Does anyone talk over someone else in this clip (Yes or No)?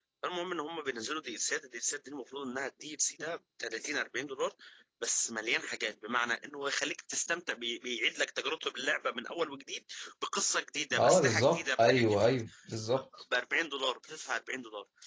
Yes